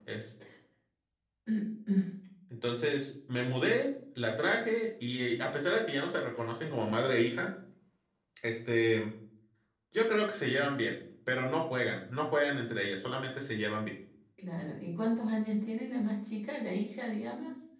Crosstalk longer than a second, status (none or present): none